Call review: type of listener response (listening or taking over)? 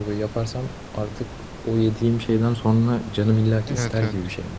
taking over